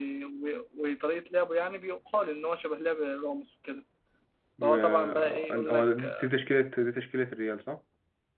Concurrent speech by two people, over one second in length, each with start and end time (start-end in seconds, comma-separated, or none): 4.6-6.3